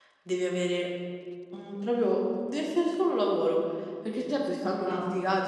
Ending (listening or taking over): listening